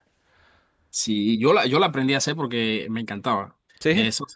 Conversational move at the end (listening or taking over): listening